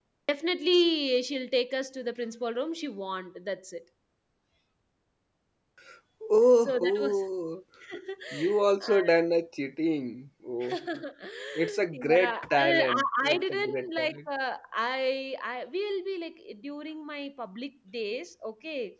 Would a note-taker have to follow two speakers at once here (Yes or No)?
Yes